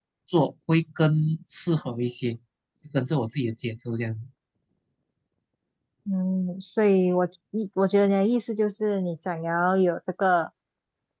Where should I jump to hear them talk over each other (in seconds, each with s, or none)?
none